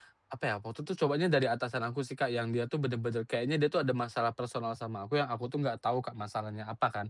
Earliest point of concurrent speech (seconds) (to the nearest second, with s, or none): none